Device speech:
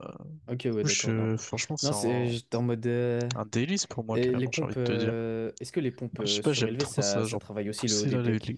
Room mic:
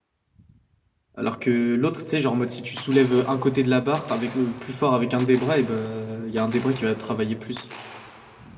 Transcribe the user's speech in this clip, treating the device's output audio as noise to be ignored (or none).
Alors que l'autre, tu sais, genre, en mode, si tu soulèves un côté de la barre avec, euh, plus fort avec un des bras, et ben, il y a un des bras qui va travailler plus.